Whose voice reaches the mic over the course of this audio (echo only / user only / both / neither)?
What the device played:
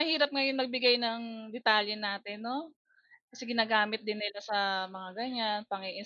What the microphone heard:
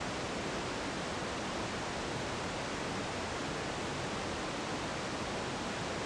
neither